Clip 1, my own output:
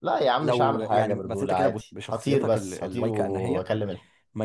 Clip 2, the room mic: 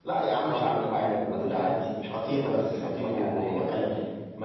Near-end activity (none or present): none